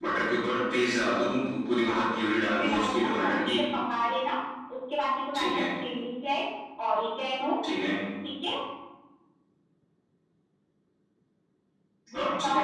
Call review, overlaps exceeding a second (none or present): present